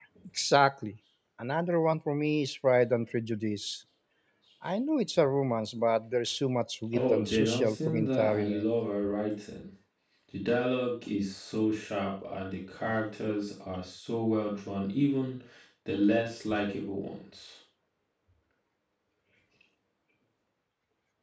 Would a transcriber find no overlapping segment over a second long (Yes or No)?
No